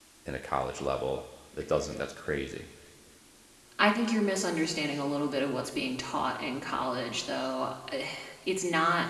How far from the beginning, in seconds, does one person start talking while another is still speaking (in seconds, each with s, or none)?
none